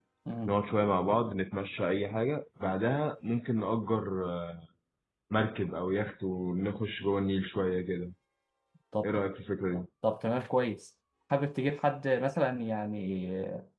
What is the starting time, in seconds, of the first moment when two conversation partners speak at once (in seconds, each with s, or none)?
none